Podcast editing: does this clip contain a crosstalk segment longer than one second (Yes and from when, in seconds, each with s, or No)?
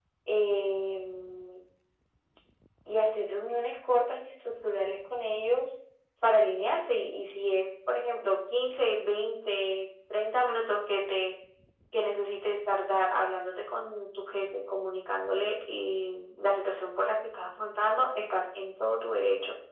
No